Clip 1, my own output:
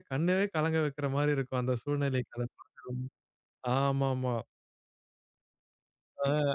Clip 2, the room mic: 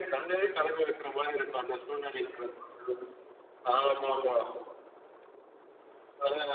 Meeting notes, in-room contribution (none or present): none